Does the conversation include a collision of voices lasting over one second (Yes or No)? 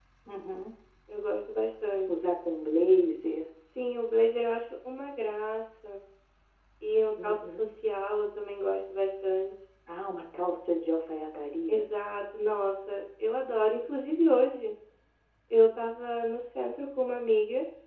No